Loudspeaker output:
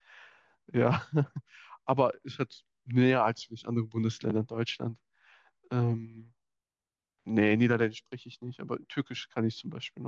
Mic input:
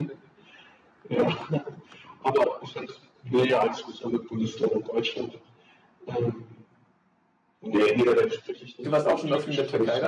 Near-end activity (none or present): present